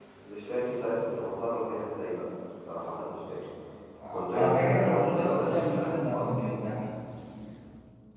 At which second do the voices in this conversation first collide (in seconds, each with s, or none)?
4.1 s